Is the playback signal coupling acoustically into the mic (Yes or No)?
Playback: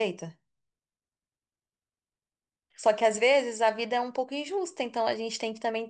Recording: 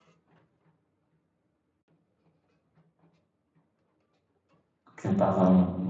No